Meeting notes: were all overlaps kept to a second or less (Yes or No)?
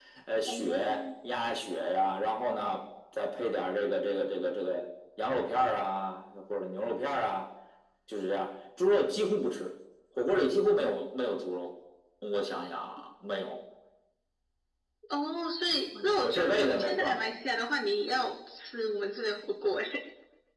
No